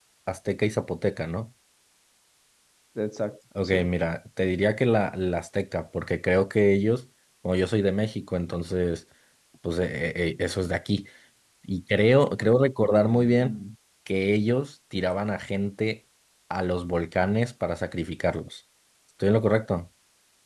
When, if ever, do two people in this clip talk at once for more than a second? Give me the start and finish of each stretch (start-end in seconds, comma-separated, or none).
none